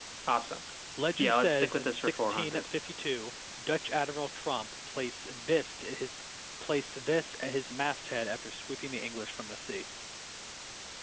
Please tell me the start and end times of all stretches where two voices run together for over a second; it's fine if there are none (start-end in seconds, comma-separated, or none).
1.2-2.6